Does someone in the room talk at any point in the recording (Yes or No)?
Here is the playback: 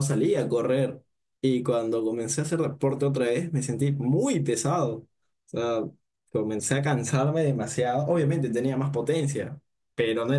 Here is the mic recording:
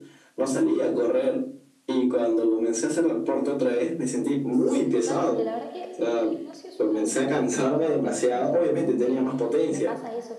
Yes